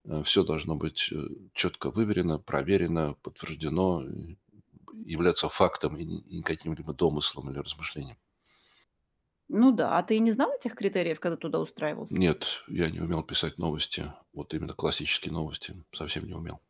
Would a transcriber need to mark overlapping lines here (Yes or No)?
No